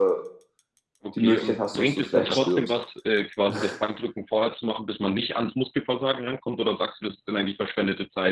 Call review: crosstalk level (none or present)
present